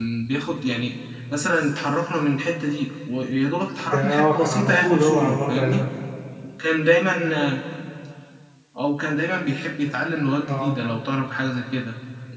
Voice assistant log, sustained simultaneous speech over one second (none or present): present